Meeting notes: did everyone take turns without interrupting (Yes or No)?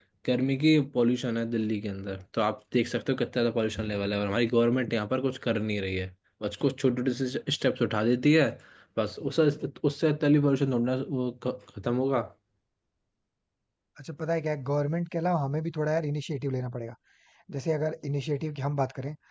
Yes